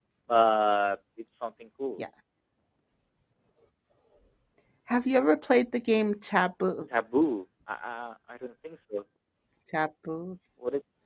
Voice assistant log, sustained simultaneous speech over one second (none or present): none